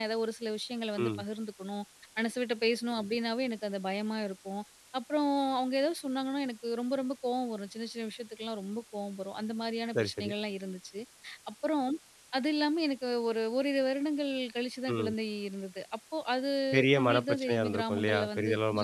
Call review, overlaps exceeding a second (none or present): present